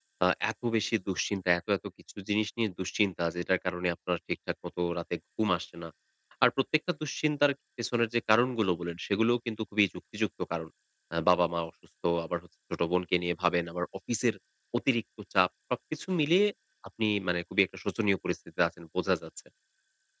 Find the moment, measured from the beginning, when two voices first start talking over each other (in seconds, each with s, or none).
none